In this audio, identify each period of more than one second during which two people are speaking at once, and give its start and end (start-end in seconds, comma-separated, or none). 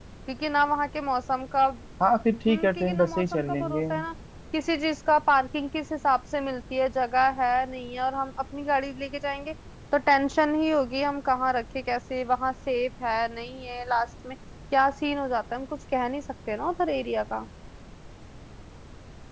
2.5-3.8